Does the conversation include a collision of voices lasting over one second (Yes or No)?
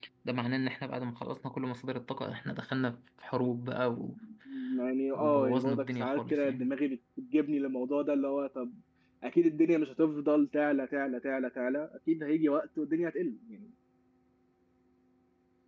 Yes